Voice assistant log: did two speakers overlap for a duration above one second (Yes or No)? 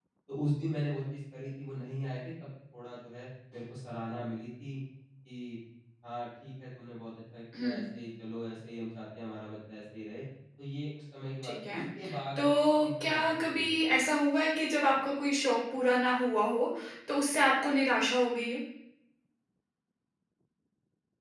Yes